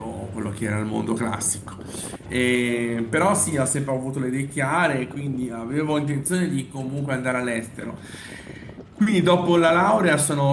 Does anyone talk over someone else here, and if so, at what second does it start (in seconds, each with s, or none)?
none